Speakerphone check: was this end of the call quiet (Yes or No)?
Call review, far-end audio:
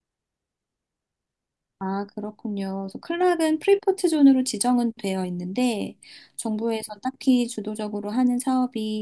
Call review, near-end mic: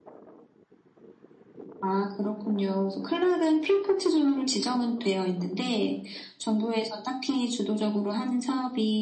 Yes